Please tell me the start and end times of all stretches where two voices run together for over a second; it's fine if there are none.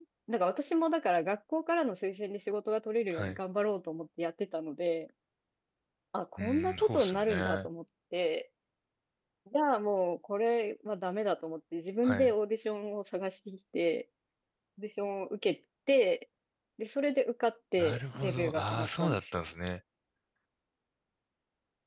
6.4-7.7, 17.8-19.2

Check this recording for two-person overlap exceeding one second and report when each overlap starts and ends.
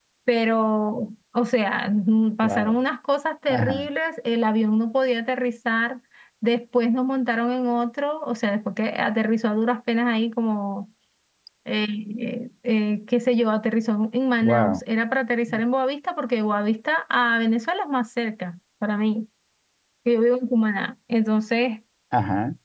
none

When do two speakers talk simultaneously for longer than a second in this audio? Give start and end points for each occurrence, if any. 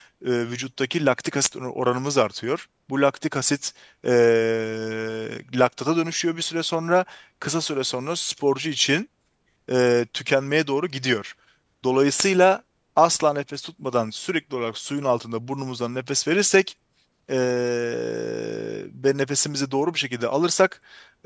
none

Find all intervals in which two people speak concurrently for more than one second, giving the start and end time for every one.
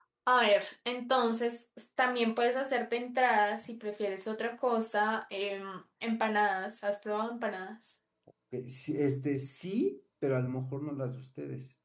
none

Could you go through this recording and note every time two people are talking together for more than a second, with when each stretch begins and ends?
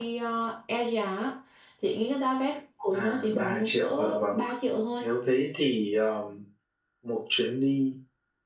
2.9-4.4

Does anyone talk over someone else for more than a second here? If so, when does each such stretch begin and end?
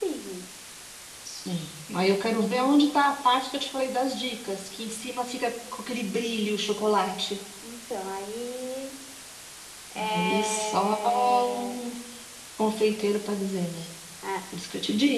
10.1-11.8

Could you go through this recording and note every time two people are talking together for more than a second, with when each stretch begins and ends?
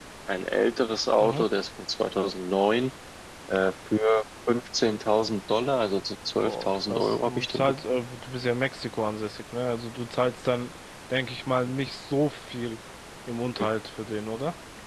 6.4-8.0

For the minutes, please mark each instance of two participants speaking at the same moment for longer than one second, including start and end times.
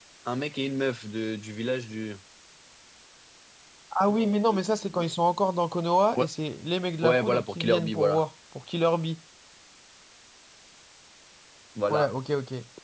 7.0-8.2

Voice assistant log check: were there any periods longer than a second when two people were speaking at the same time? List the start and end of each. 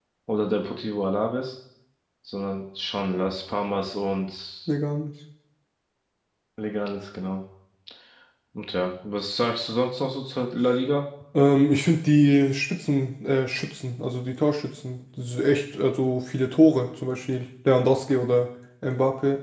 none

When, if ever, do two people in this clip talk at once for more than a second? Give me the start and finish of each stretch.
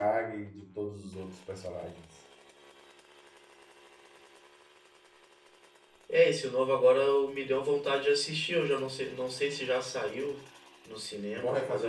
none

